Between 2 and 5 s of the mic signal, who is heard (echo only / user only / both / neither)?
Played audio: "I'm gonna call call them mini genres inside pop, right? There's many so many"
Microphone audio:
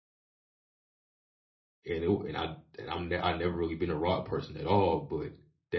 user only